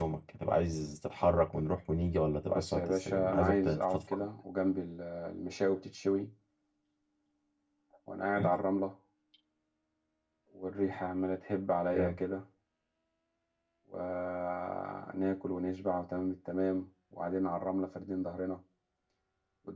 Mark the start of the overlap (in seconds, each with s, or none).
2.5 s